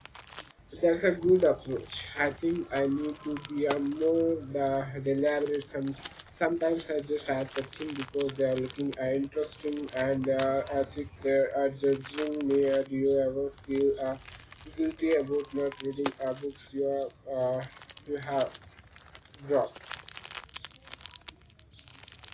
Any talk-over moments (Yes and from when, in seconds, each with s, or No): No